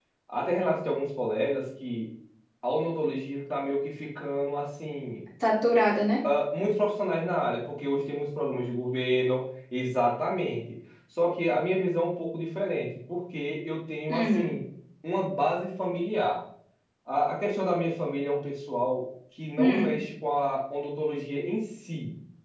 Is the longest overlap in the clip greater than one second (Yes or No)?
No